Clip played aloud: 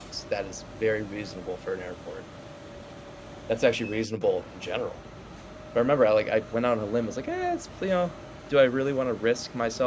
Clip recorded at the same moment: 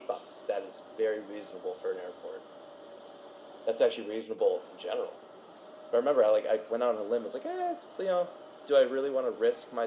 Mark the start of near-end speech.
none

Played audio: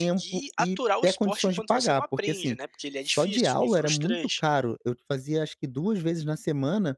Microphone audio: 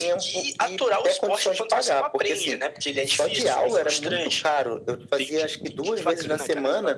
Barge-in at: 5.2 s

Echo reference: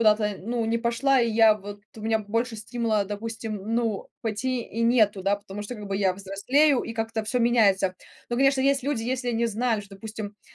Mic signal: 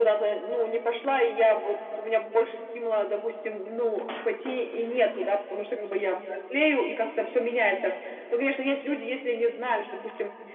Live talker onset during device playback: none

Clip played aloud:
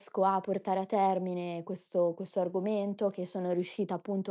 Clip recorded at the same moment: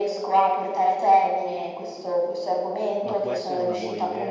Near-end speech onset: 3.0 s

